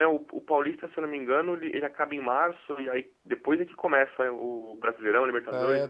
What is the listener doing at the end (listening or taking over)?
taking over